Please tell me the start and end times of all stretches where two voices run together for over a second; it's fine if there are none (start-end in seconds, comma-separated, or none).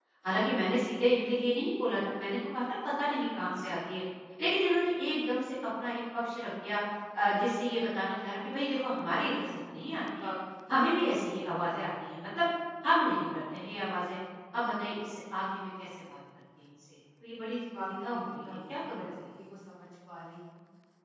17.8-19.1